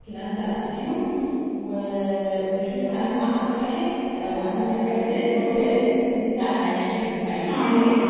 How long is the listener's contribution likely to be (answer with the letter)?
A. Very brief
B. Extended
B